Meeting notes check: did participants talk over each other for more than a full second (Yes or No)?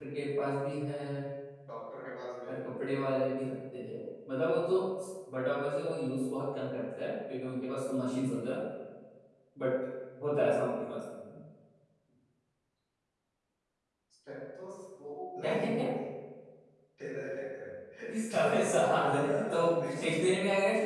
Yes